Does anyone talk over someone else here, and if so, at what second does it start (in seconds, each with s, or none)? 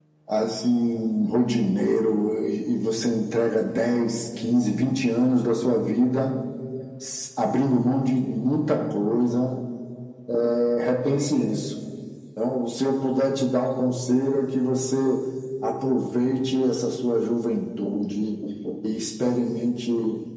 none